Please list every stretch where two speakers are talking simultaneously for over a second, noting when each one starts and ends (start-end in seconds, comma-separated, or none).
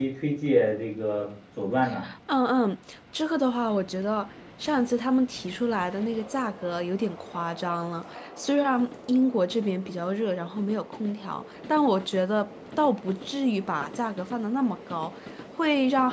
none